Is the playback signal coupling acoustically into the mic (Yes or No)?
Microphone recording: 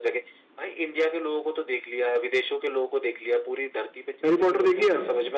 Yes